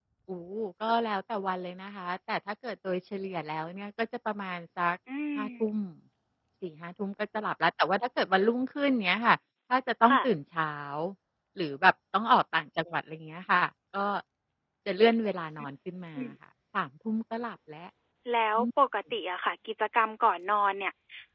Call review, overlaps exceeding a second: none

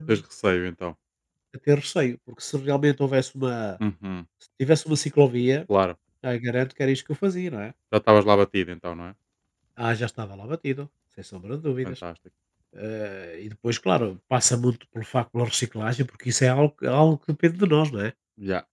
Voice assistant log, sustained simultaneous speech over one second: none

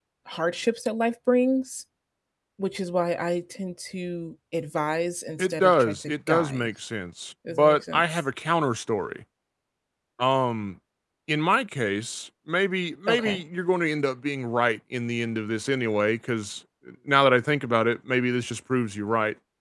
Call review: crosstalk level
present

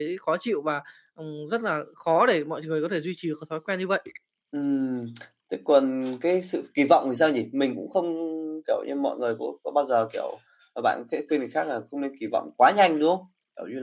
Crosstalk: none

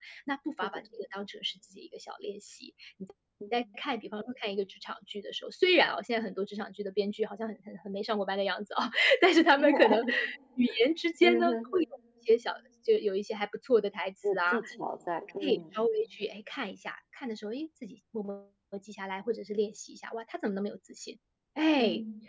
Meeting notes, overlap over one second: none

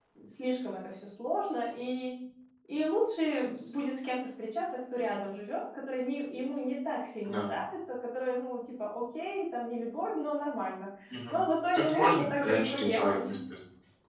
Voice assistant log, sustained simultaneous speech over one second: present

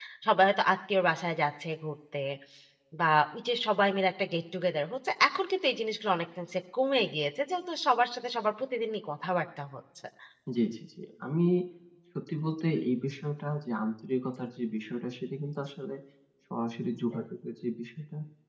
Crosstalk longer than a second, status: none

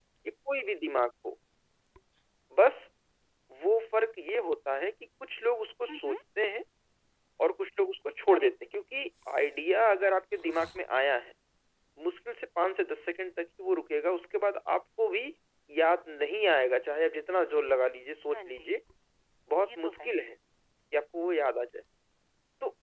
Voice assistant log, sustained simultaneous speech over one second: none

